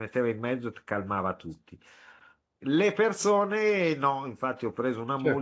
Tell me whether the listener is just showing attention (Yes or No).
Yes